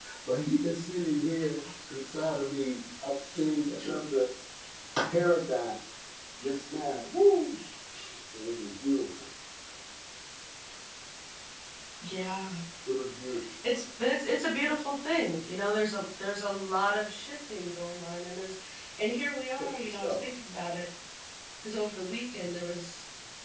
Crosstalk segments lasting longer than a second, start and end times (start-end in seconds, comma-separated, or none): none